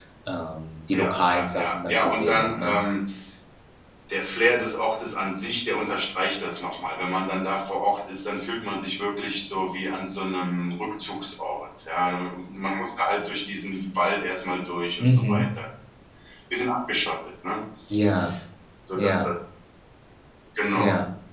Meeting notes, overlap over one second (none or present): present